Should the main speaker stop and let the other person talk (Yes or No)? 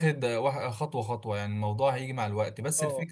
No